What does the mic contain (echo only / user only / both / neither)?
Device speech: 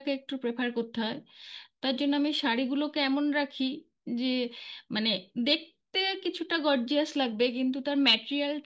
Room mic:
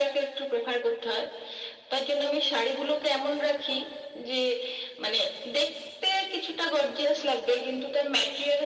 echo only